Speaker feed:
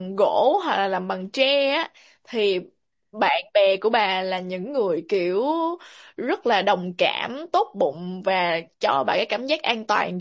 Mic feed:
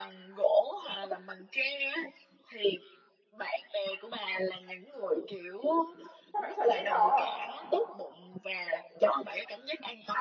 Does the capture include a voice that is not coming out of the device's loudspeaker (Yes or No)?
Yes